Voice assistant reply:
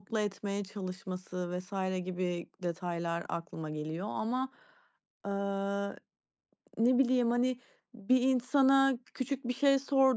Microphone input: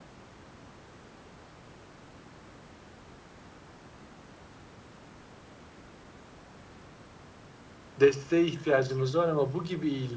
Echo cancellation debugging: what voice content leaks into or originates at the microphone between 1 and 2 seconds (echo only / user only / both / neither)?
neither